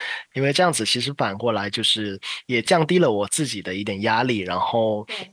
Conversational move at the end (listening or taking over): listening